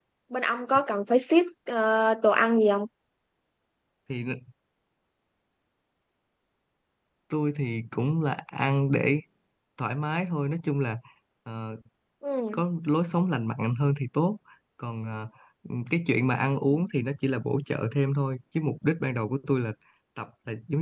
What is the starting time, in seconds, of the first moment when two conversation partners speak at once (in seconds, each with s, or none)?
none